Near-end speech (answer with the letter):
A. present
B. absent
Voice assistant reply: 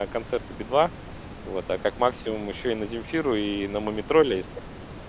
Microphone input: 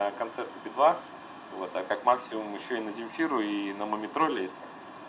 B